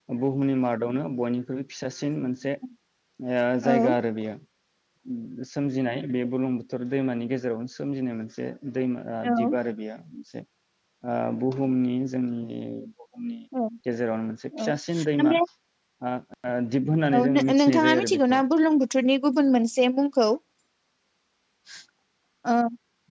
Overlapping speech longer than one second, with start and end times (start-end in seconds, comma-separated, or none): 17.2-18.4